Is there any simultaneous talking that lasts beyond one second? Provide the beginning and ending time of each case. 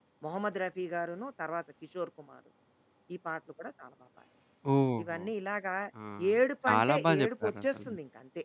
6.7-7.9

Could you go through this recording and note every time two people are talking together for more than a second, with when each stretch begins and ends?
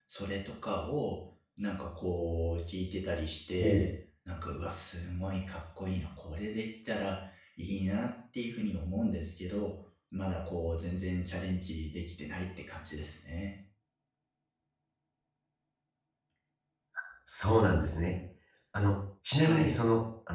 none

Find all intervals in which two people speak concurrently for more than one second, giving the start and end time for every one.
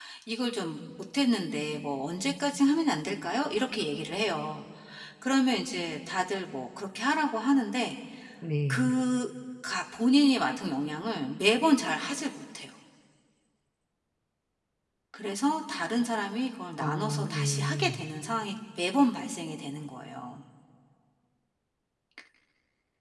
16.8-18.1

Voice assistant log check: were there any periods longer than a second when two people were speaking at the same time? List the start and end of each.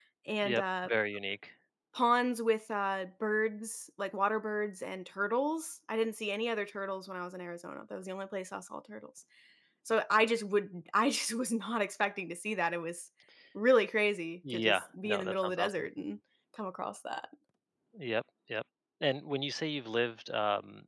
14.5-15.9

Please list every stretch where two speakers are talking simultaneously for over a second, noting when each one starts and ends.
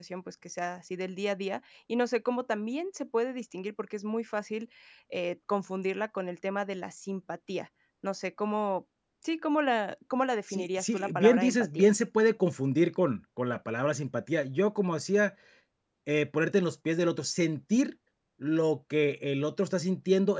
10.5-11.9

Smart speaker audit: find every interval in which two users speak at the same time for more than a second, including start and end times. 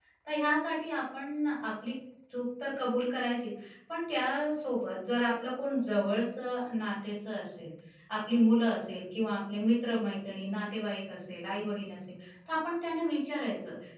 none

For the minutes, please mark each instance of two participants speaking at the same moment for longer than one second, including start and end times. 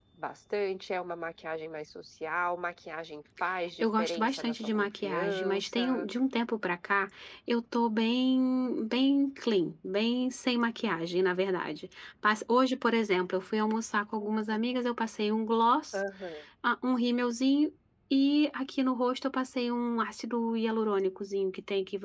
3.8-6.1

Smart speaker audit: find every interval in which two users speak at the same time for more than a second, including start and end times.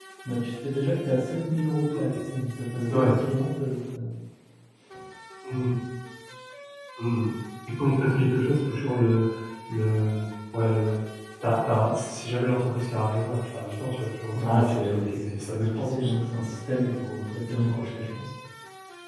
14.4-16.2

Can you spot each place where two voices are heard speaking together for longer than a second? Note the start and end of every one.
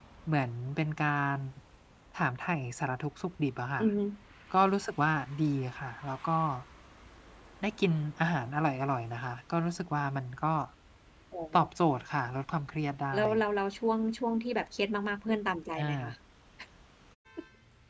none

